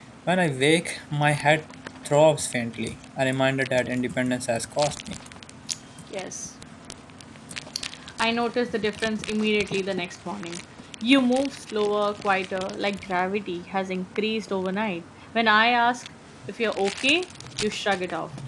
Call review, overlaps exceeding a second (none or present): none